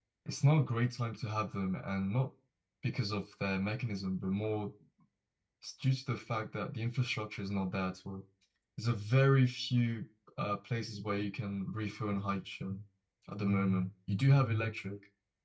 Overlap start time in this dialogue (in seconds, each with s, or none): none